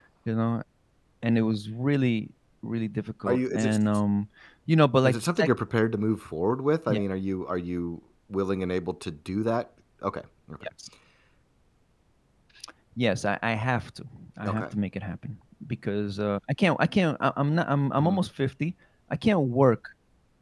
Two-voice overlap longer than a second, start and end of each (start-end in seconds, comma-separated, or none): none